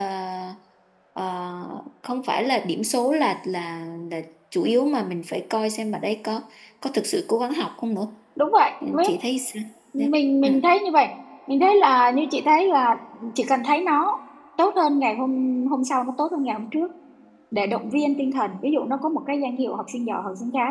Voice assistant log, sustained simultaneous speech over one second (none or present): none